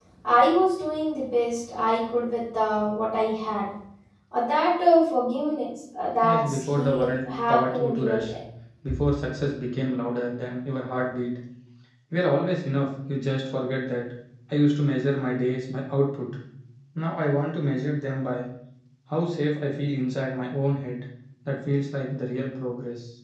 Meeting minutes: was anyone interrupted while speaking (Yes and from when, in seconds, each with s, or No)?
Yes, from 6.2 s